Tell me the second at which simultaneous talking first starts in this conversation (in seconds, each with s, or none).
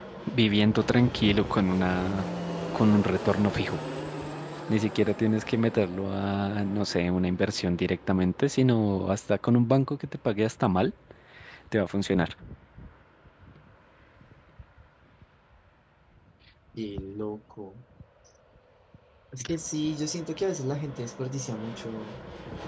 none